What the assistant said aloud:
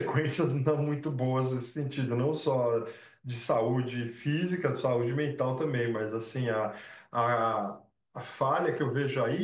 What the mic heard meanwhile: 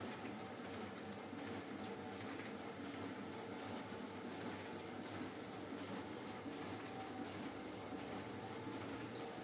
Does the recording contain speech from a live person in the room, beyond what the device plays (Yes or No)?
No